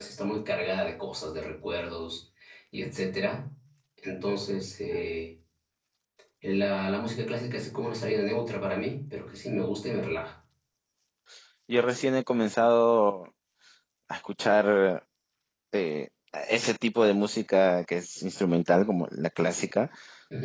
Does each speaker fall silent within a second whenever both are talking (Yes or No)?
Yes